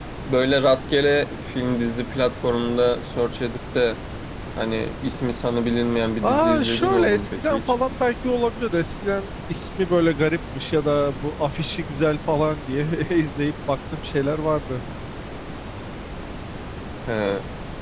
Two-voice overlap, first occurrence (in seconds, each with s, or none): 6.2 s